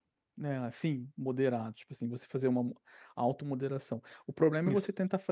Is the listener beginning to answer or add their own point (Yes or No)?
No